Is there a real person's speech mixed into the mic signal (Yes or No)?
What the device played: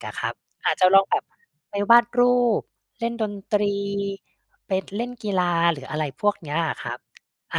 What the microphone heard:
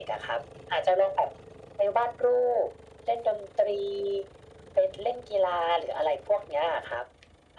No